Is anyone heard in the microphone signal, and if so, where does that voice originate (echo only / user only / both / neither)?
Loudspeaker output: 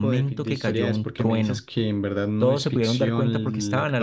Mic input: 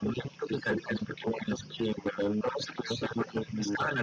echo only